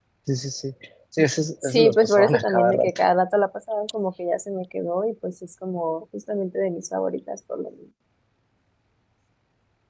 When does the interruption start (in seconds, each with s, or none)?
1.6 s